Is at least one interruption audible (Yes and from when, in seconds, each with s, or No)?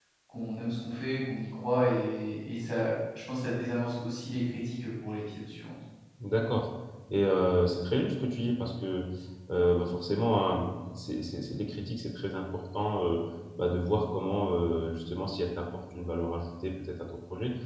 No